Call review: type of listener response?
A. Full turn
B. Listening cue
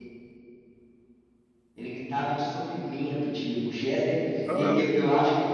B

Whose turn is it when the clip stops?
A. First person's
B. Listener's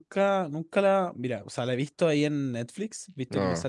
A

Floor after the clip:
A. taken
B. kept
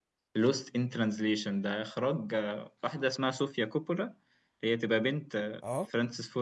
B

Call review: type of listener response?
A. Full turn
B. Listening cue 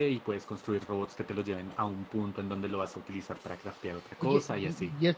A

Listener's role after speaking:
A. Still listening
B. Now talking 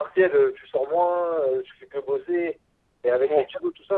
A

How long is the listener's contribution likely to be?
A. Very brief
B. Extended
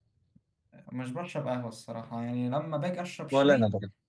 A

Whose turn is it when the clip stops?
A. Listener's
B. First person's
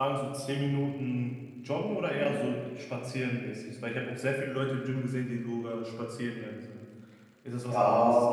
A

